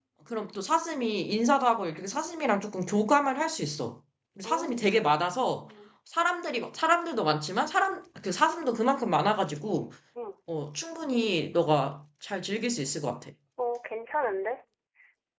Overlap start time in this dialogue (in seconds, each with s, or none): 4.4 s